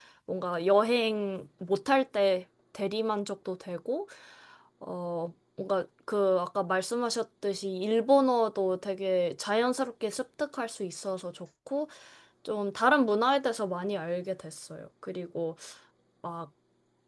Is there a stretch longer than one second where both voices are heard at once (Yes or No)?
No